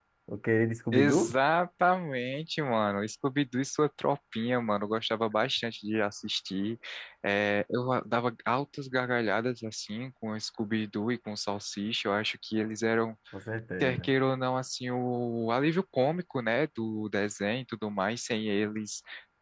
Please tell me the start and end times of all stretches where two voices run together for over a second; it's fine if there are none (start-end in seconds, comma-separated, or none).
none